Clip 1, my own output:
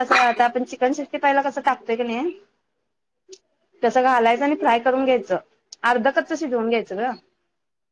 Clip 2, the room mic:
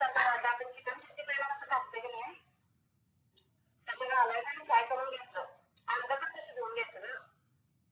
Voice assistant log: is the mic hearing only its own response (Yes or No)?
Yes